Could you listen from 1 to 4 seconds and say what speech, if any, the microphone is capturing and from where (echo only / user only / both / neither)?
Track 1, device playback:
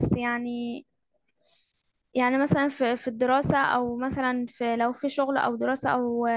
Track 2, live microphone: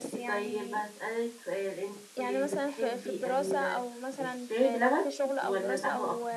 both